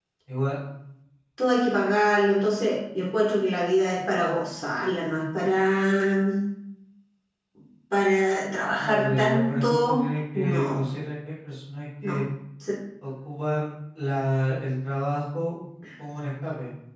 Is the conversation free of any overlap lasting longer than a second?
No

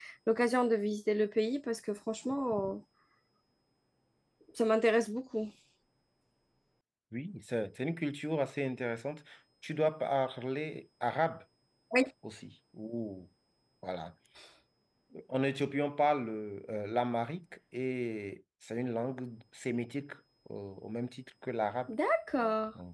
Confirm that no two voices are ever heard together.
Yes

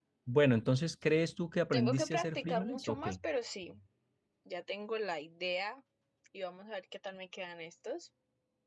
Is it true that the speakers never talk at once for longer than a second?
No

